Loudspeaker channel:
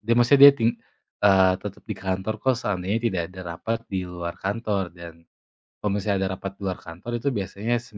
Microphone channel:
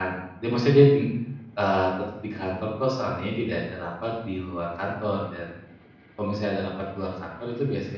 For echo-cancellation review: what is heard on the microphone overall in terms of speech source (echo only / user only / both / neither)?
echo only